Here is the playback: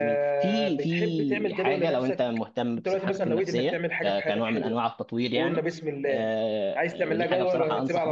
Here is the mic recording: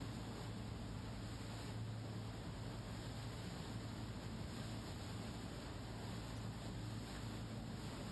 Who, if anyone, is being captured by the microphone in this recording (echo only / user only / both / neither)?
neither